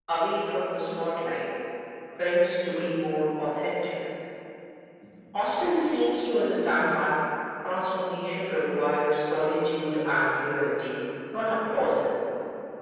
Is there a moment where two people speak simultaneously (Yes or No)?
No